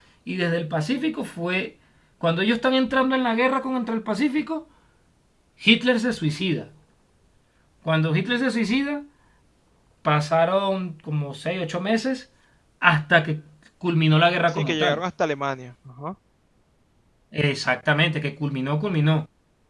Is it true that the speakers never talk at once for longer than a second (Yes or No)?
Yes